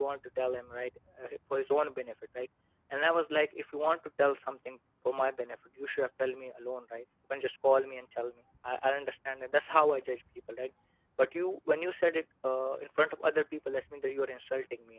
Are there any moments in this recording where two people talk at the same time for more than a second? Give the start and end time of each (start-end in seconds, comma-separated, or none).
none